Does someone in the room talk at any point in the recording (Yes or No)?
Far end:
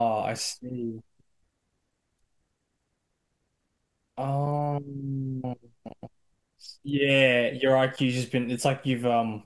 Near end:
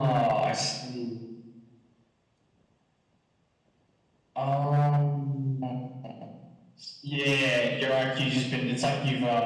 No